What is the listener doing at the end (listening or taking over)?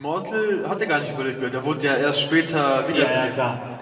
taking over